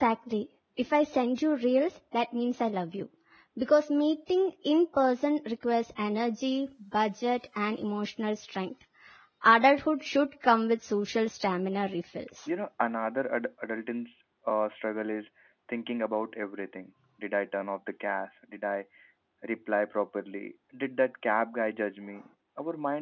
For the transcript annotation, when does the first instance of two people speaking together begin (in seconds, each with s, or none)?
none